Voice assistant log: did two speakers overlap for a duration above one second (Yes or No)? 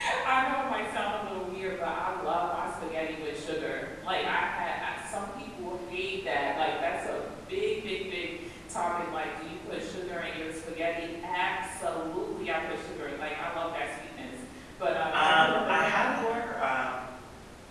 Yes